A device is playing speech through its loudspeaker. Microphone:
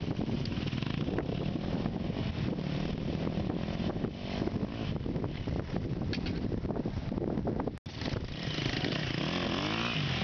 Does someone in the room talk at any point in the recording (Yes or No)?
No